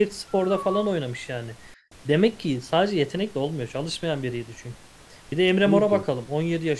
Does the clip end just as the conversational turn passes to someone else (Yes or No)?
No